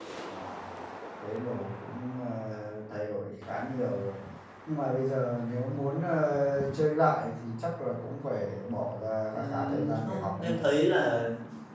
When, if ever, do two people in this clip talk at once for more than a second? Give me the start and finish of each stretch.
9.3-10.6

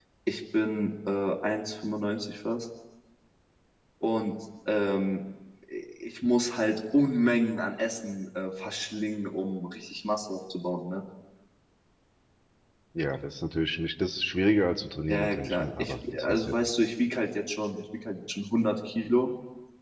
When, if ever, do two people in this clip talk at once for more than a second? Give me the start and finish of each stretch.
15.1-16.5

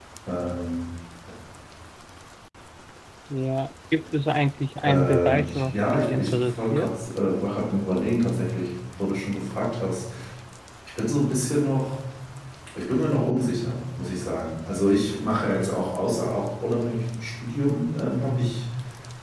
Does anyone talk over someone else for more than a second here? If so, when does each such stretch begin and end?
4.8-6.9

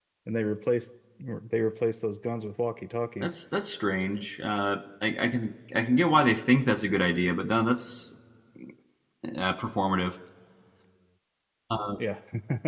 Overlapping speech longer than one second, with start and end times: none

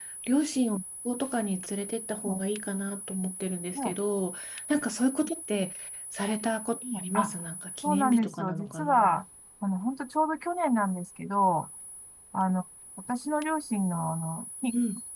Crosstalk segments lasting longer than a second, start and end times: 7.8-9.2

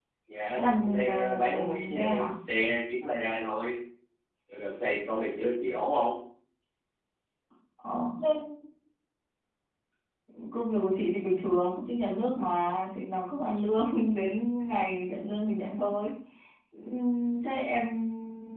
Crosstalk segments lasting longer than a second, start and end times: 0.5-2.3

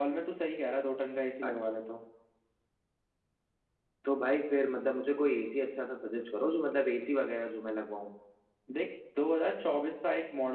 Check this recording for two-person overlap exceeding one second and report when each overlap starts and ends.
none

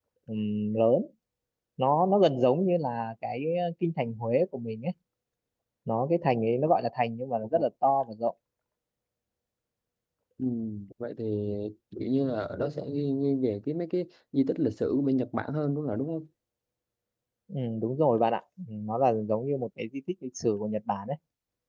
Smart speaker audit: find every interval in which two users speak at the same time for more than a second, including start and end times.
none

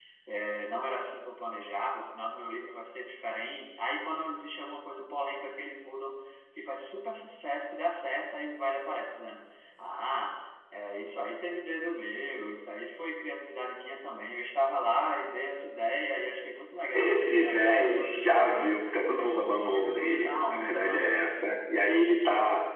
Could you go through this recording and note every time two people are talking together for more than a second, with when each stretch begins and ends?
16.9-21.0

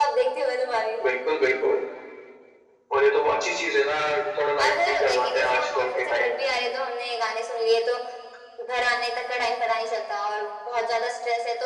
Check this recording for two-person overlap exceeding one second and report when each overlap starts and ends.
4.0-6.5

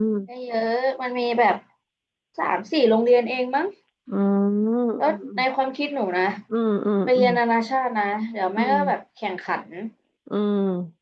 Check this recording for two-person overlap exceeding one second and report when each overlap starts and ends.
none

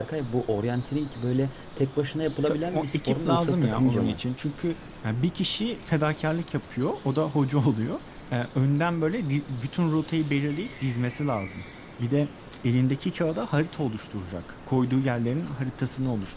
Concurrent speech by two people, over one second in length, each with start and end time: 2.5-4.2

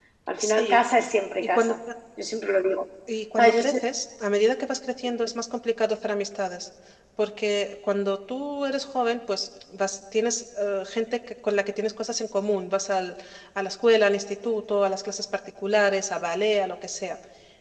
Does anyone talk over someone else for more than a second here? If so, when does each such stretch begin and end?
none

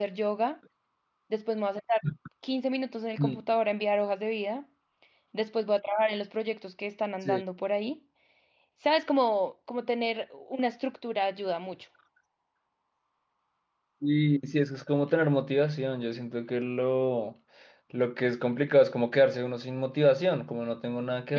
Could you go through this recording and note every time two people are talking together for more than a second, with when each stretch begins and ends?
none

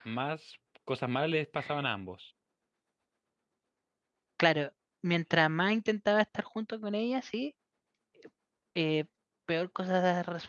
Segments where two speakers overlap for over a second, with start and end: none

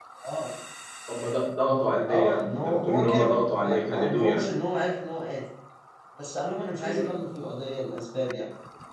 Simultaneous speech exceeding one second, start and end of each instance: 2.1-4.5

